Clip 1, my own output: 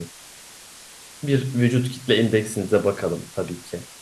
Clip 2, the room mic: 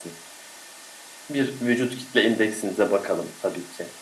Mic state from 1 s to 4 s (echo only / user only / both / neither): echo only